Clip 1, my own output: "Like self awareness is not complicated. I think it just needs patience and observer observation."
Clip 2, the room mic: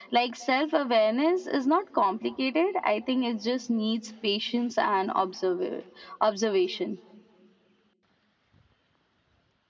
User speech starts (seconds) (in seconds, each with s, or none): none